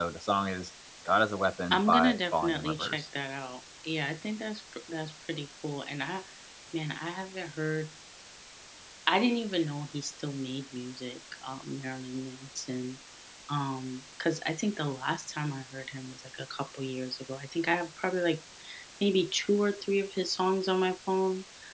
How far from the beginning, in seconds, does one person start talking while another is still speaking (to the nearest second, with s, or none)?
2 s